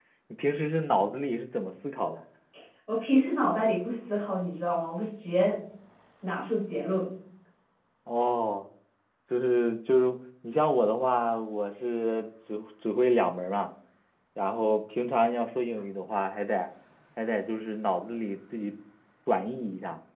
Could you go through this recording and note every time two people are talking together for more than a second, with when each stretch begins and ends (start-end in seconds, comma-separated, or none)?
none